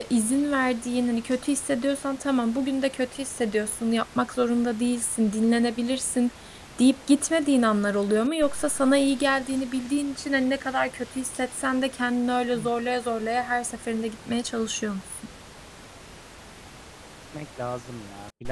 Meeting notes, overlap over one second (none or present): none